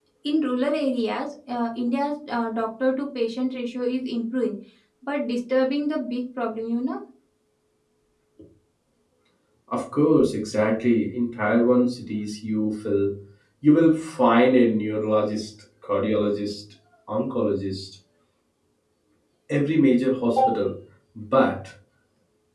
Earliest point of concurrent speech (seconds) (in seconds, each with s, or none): none